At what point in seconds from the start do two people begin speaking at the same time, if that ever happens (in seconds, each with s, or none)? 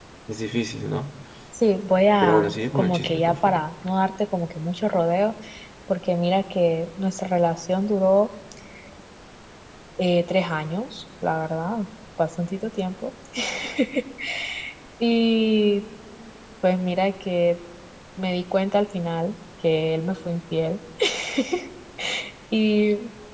2.2 s